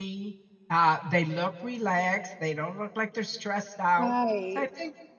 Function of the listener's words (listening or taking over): listening